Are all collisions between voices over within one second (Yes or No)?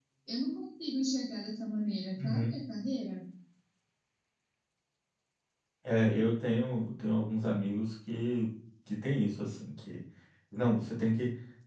Yes